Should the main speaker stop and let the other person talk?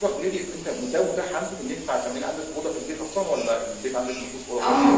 Yes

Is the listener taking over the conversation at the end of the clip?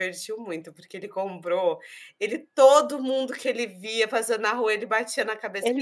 No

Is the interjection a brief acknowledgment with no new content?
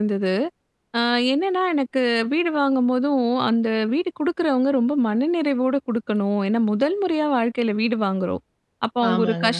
Yes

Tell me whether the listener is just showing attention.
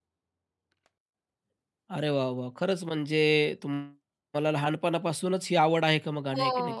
No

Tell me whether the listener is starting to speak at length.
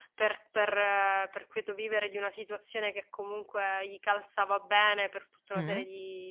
No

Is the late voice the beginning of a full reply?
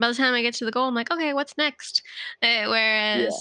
No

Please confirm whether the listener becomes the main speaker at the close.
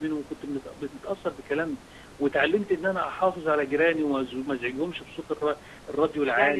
Yes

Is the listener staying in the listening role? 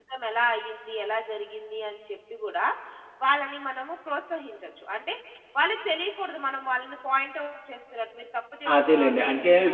No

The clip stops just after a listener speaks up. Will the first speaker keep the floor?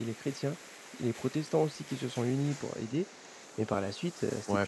No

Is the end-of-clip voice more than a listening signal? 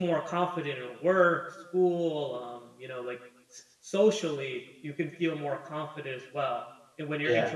No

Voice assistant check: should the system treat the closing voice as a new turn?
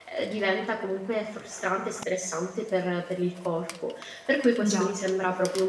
No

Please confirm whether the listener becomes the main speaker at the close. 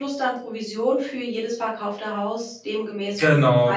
Yes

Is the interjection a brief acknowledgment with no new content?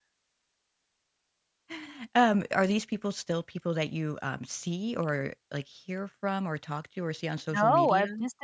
No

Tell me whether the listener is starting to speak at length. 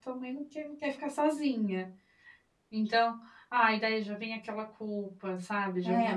Yes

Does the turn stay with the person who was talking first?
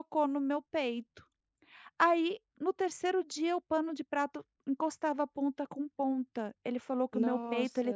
Yes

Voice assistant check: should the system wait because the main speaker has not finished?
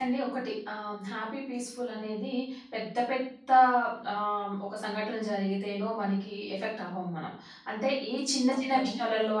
Yes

